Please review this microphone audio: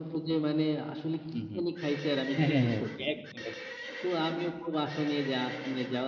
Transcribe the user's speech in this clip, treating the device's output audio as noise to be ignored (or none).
হু, হু। হ্যাঁ, হ্যাঁ, হ্যাঁ। একদম, একদম।